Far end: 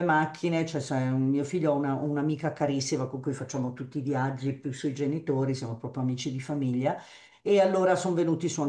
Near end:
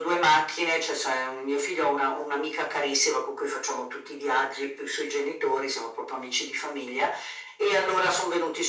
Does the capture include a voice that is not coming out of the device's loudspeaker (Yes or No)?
No